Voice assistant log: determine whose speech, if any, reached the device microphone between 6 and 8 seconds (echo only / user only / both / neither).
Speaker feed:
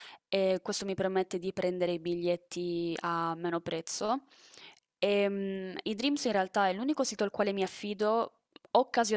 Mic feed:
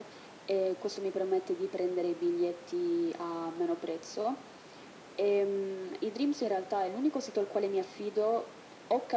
echo only